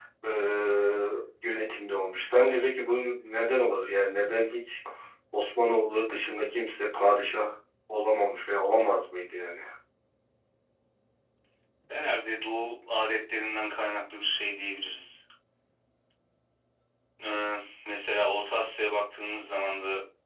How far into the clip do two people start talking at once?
none

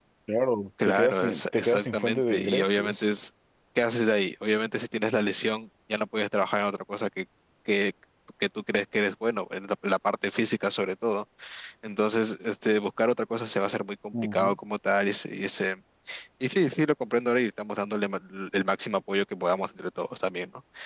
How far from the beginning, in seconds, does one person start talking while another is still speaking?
1 s

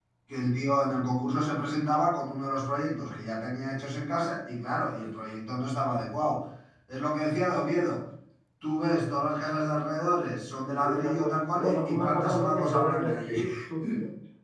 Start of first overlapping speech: 11 s

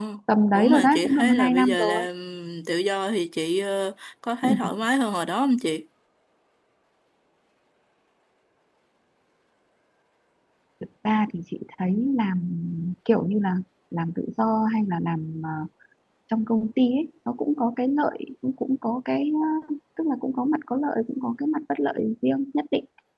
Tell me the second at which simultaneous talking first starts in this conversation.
1 s

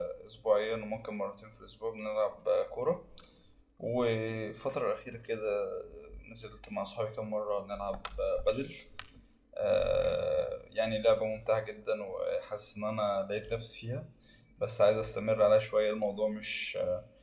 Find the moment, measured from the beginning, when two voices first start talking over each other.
none

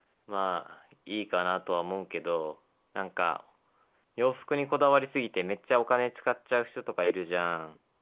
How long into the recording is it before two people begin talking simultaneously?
none

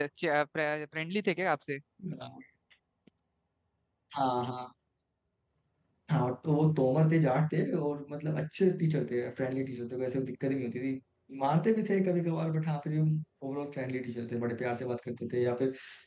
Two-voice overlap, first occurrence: none

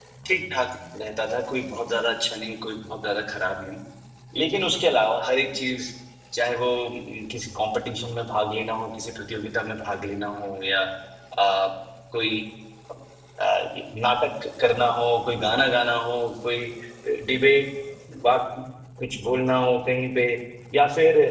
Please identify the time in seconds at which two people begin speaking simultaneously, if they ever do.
none

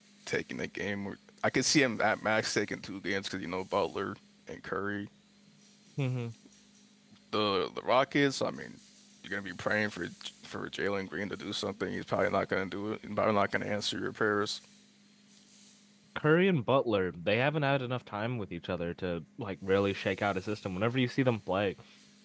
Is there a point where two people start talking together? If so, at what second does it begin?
none

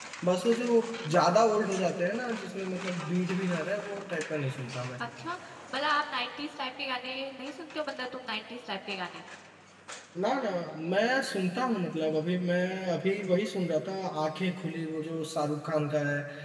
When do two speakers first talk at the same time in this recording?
none

